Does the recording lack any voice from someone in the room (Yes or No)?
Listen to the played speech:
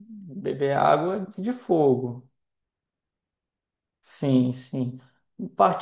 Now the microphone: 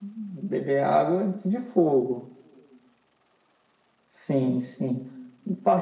Yes